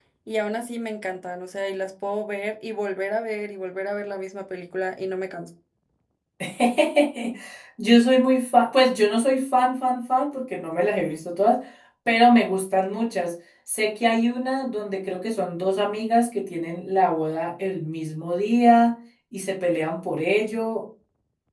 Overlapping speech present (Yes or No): No